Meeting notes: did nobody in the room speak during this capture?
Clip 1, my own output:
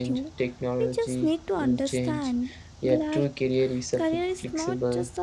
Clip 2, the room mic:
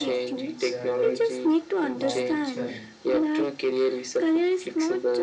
No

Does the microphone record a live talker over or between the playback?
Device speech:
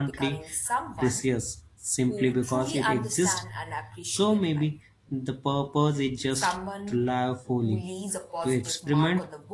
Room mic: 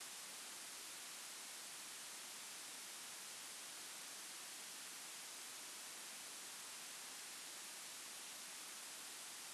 No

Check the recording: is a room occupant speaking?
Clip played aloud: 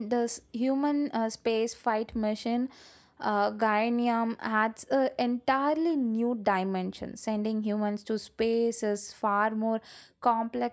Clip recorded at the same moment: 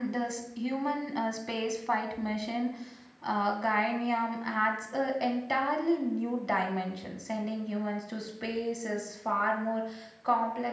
No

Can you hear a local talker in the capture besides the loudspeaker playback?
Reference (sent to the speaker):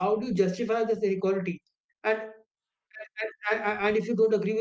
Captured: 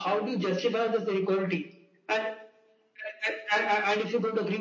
No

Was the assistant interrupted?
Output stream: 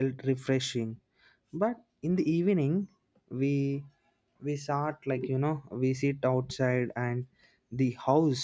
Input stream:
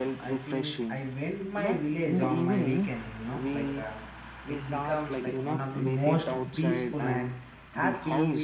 Yes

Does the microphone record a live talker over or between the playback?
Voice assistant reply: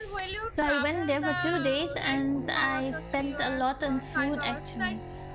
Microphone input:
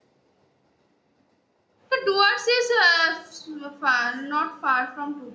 Yes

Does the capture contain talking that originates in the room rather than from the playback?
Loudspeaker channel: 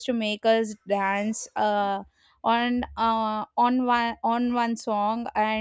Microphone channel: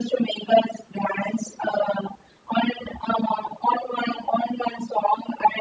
No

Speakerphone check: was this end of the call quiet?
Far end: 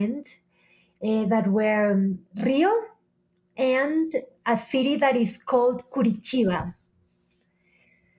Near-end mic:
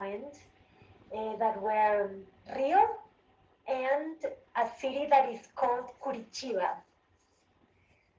Yes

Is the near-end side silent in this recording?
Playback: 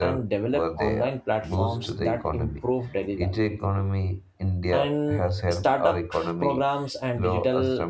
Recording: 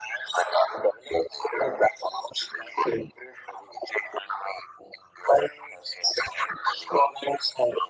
Yes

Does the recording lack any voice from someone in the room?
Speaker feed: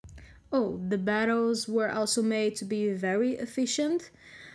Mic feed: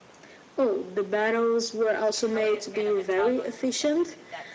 No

